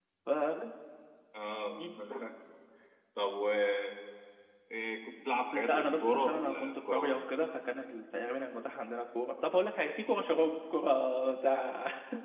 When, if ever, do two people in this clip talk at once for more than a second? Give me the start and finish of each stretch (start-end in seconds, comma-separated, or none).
5.5-7.2